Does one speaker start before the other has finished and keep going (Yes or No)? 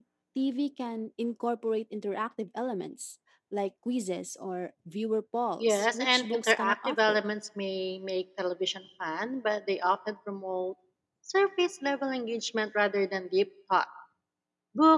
Yes